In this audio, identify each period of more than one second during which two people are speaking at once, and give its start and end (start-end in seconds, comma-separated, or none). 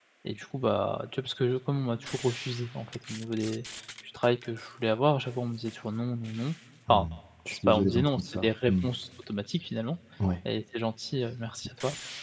7.5-8.7